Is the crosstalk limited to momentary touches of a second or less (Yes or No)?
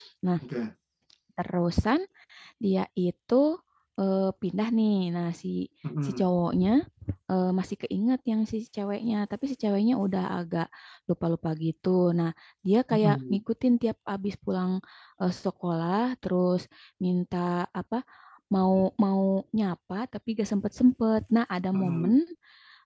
Yes